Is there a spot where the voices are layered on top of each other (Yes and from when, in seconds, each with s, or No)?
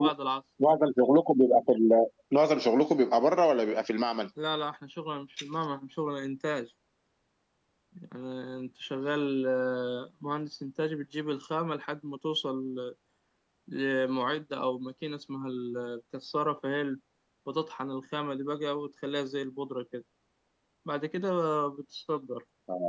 No